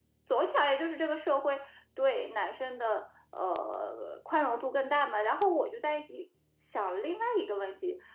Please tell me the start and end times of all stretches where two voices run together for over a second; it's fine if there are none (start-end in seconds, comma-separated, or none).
none